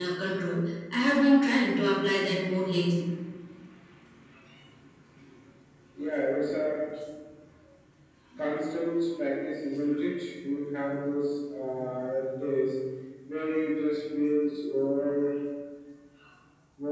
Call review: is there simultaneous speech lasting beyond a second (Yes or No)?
No